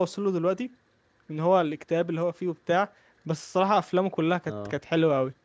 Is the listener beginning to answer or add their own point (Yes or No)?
No